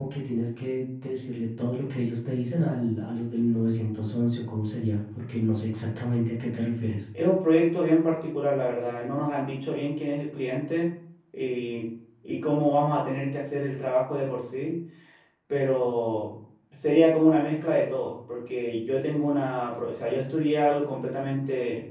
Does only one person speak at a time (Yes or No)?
Yes